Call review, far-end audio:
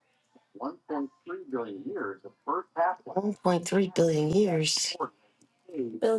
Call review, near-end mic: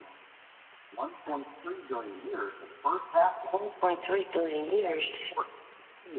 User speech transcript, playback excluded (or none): none